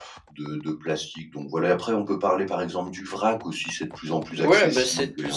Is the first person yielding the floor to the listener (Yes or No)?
Yes